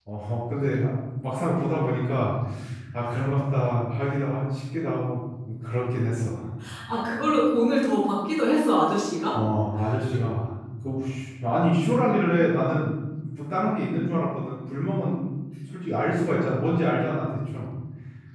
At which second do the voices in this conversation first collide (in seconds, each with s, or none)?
none